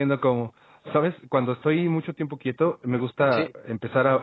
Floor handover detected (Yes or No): No